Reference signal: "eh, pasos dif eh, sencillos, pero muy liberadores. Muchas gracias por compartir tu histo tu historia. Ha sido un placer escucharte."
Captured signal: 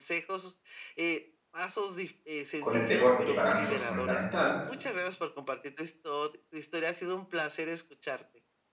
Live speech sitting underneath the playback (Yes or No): No